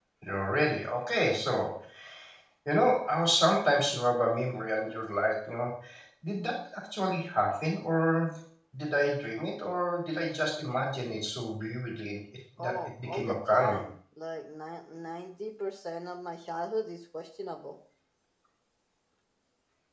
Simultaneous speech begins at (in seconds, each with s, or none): 12.6 s